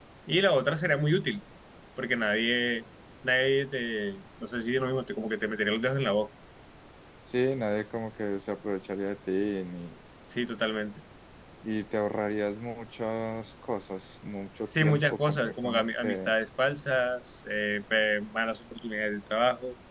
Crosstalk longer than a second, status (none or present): present